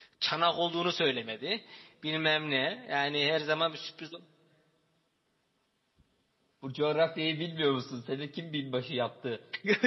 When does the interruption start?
none

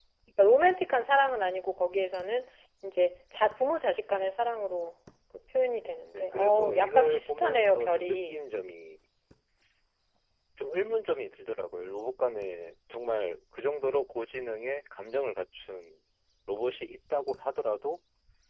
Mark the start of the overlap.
6.1 s

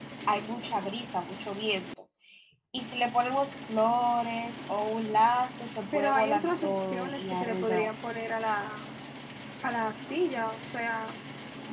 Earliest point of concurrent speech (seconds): 5.9 s

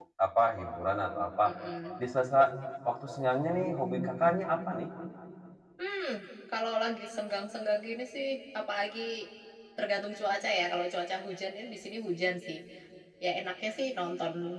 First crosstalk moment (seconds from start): none

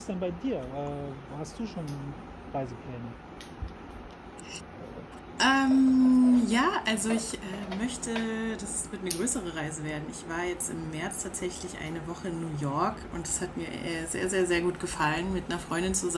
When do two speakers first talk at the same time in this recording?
none

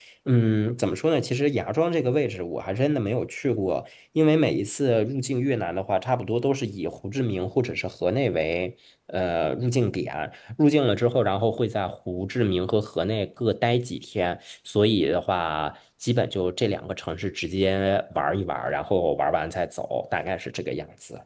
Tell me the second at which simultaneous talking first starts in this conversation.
none

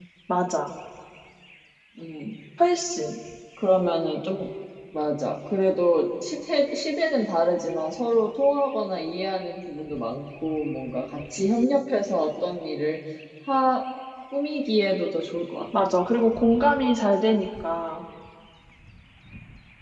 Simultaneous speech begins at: none

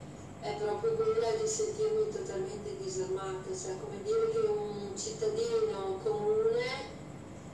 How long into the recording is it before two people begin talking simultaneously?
none

